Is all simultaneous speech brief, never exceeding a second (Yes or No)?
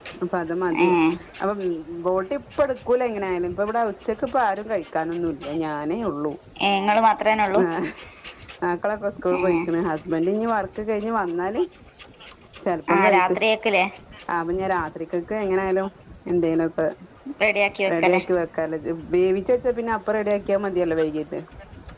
Yes